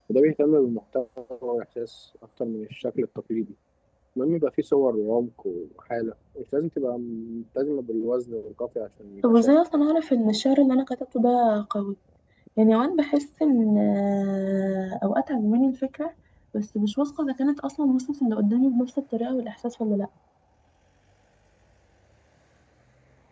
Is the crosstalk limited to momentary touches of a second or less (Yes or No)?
Yes